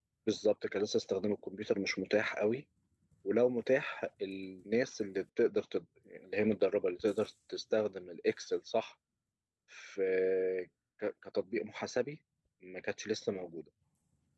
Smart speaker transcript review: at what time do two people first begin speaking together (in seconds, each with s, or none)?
none